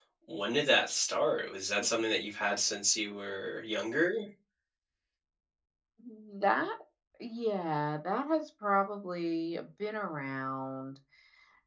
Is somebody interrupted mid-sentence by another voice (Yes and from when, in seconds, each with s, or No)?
No